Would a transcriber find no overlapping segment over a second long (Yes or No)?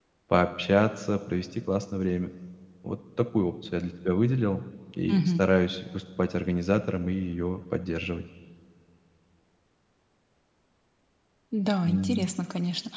Yes